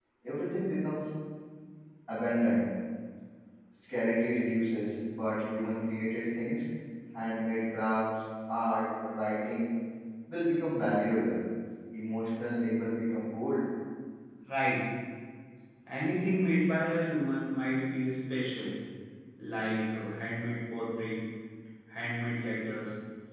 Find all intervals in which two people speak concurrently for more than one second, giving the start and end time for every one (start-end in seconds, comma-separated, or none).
none